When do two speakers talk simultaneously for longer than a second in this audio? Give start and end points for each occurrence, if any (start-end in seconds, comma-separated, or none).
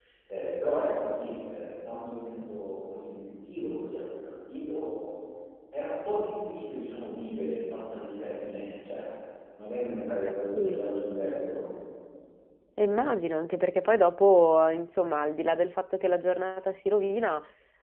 none